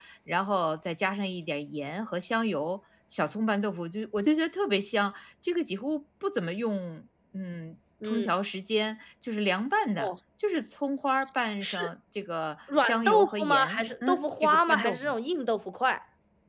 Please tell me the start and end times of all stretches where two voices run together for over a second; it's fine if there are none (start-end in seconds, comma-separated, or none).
12.8-15.1